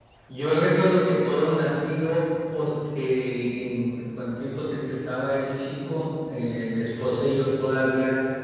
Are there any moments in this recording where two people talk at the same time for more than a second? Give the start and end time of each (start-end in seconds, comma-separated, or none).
none